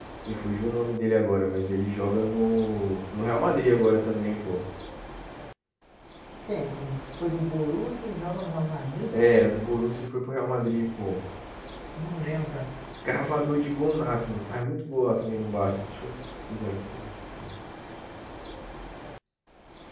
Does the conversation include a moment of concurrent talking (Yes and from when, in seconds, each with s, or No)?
No